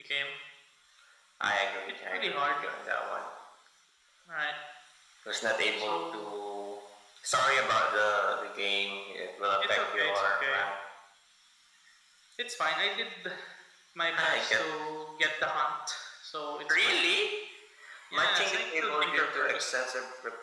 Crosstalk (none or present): present